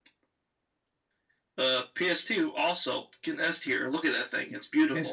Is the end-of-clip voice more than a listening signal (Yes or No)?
Yes